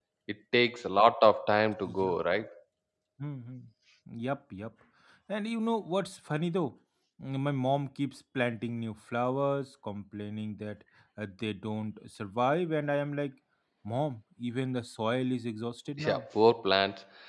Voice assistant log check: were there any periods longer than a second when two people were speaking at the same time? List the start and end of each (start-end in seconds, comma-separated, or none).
none